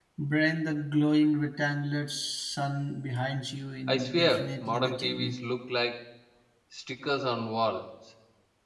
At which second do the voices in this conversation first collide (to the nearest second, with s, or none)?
4 s